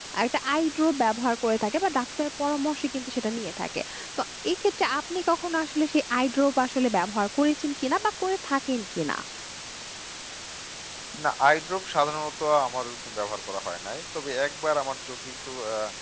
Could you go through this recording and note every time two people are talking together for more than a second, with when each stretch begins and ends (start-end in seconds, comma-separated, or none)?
none